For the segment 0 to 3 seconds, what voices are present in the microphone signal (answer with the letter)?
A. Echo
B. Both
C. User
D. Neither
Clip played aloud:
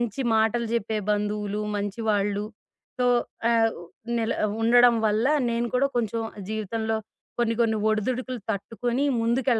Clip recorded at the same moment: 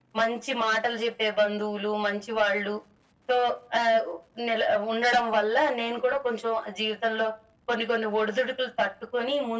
A